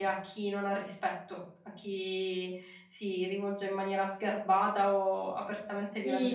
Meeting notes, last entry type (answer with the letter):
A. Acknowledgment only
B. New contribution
B